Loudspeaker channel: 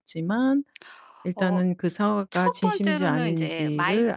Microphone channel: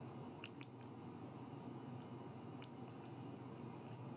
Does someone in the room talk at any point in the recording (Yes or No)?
No